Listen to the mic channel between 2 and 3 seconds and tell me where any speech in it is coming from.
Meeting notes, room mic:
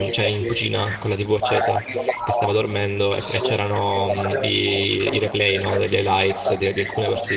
both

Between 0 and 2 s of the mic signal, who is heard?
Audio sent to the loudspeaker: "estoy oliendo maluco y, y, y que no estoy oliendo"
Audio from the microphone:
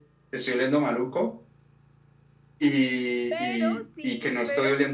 echo only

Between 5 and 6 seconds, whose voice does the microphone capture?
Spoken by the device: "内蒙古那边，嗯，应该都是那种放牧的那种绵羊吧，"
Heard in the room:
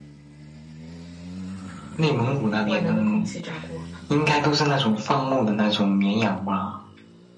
echo only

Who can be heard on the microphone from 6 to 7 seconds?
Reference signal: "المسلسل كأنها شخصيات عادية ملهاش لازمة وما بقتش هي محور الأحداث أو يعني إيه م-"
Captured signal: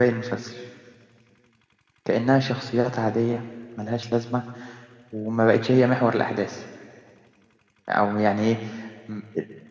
echo only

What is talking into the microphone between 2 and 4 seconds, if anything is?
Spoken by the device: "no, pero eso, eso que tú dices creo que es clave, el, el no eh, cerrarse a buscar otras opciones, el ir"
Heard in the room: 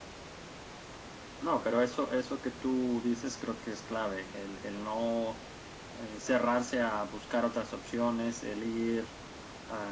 echo only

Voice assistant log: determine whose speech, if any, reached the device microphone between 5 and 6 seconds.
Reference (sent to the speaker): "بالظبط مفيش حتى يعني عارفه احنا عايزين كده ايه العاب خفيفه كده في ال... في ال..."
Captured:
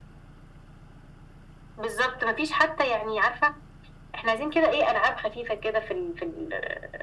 echo only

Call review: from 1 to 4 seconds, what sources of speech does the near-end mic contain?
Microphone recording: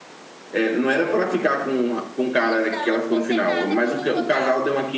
both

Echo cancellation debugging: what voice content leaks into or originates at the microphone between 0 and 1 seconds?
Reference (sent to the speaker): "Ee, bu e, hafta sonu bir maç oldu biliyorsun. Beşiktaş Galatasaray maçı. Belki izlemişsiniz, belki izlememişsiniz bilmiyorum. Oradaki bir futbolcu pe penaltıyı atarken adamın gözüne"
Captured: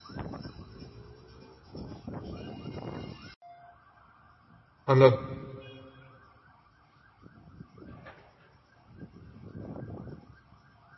neither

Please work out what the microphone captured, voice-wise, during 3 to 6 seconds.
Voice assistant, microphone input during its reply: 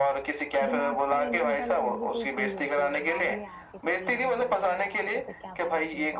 both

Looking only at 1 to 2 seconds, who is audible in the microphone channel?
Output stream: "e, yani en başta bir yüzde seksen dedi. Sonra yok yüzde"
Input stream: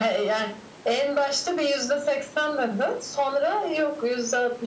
echo only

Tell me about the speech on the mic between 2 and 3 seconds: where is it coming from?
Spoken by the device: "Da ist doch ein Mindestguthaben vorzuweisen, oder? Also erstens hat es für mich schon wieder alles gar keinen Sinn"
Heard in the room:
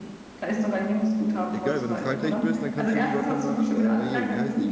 both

